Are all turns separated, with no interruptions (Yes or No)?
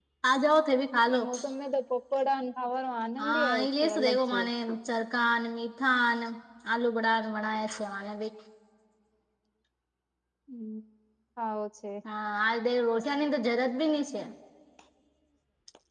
No